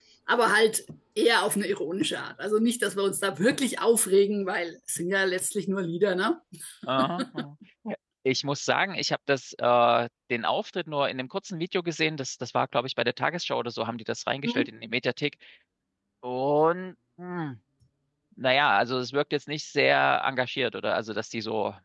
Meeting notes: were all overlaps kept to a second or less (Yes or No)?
Yes